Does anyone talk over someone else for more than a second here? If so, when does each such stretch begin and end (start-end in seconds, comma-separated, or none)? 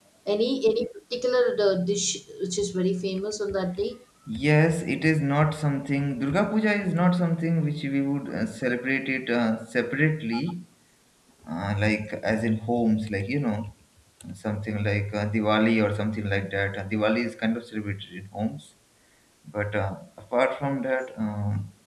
none